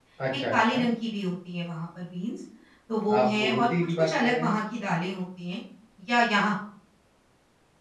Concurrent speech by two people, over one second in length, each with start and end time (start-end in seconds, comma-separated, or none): 3.2-4.5